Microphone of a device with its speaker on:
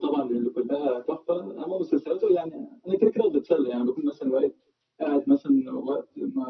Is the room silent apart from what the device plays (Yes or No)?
Yes